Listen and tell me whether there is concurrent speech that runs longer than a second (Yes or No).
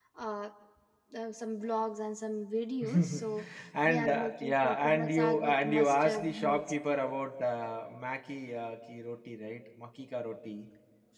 Yes